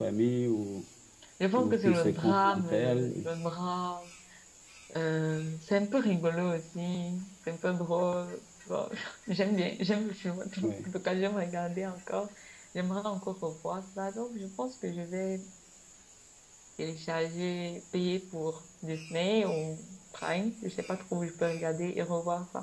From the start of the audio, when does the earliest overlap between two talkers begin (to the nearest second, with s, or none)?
2 s